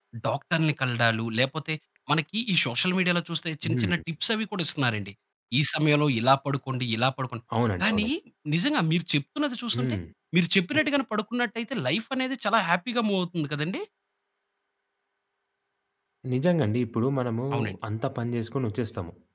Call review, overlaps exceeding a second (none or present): none